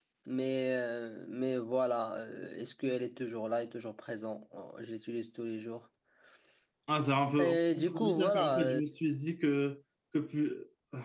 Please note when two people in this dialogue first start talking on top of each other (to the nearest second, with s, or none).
7 s